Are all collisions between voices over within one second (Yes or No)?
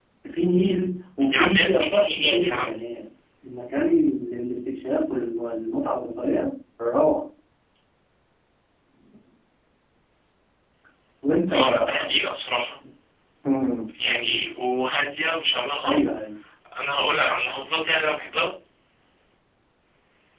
No